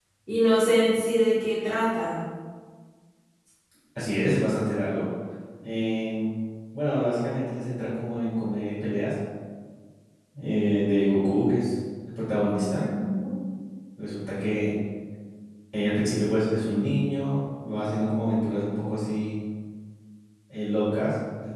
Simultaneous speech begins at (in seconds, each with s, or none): none